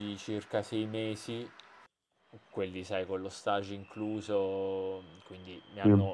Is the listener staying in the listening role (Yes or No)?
Yes